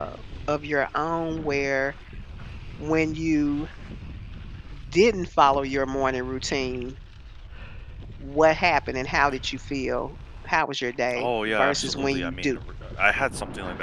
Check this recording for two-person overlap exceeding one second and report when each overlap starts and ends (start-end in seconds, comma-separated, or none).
11.2-12.6